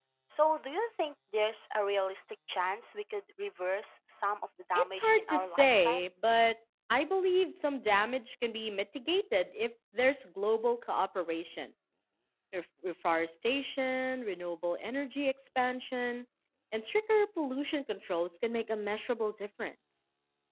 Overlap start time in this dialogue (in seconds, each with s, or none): 4.8 s